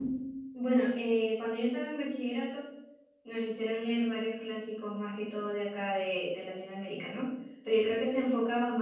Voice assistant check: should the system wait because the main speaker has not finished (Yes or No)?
Yes